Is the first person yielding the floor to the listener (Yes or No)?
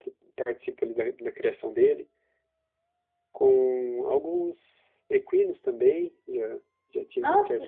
No